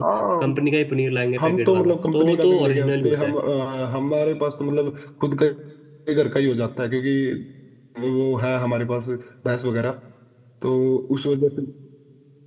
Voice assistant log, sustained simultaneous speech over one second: present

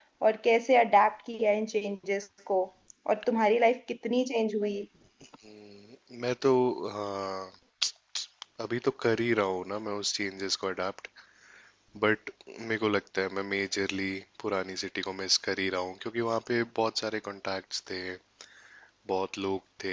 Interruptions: none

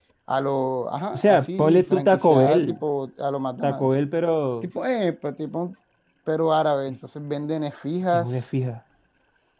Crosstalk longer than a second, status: present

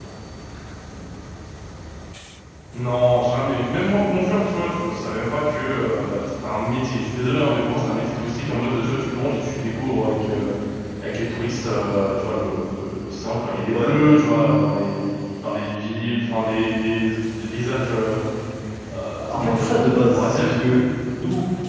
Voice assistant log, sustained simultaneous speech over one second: present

